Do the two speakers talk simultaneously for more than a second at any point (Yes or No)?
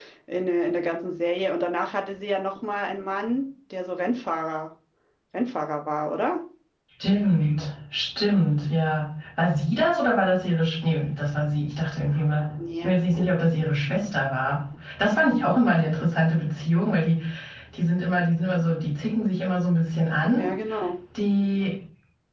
No